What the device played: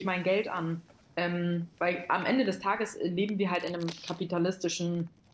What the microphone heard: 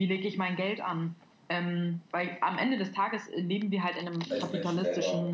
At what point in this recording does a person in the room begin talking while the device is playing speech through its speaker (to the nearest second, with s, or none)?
4 s